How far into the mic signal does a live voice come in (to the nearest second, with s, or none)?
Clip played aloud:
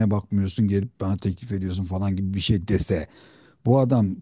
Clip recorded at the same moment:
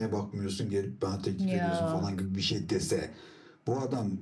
1 s